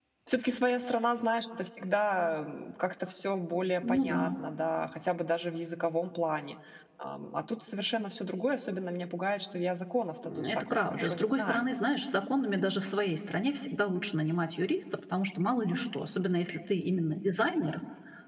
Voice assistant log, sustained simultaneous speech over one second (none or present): present